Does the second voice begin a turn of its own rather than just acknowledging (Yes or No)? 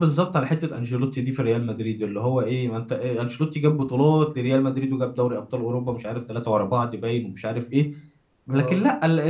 No